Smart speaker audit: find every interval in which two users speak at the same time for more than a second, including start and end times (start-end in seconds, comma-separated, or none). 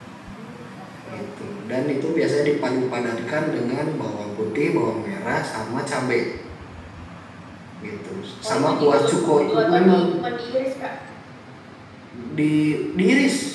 8.5-10.0